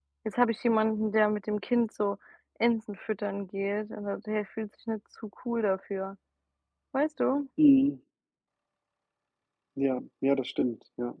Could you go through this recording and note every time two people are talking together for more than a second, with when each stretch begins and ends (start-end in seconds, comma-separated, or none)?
none